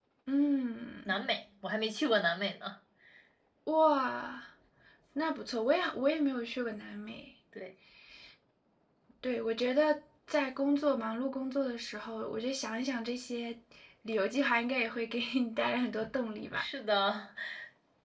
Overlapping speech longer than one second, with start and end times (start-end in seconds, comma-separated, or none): none